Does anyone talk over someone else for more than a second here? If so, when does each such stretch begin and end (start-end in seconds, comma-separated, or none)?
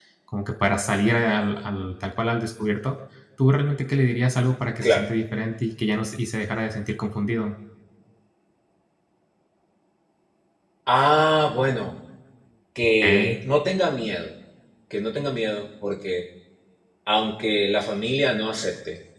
none